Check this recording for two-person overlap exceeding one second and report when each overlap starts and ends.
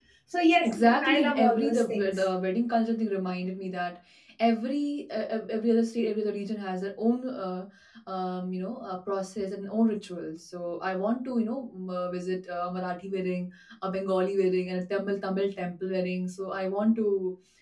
0.7-2.2

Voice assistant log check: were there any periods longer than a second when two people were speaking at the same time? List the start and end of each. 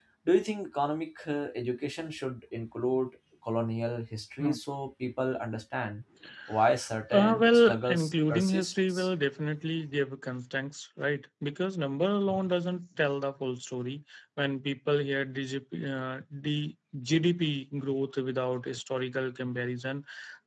7.1-9.1

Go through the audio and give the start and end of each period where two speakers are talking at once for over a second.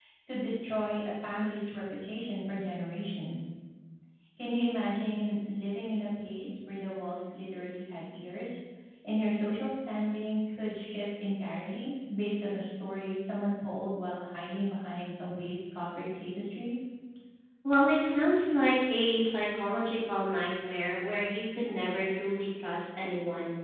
none

